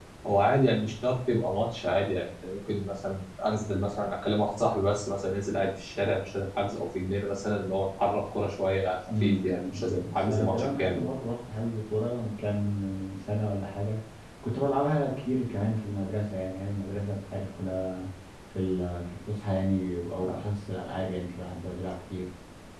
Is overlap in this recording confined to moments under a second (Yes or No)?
No